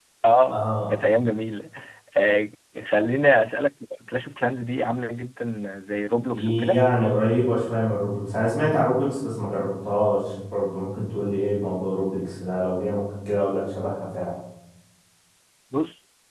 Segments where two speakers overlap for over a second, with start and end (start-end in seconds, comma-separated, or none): none